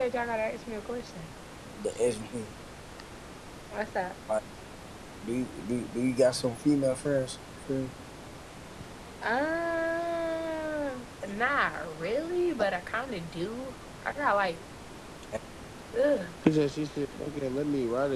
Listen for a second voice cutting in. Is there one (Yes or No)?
No